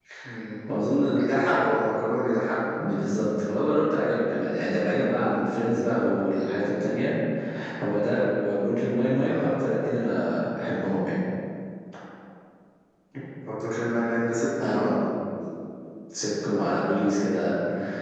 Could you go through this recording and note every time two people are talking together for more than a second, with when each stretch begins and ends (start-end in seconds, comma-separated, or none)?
none